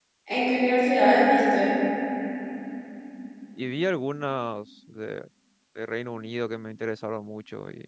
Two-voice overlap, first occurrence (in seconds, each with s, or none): none